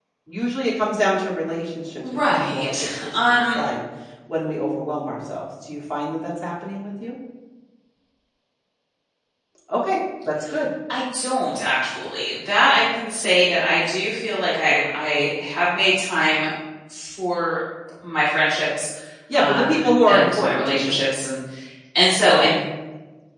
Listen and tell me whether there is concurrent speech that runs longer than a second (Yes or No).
Yes